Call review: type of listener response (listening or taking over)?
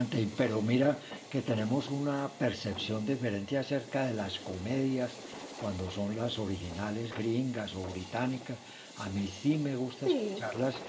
listening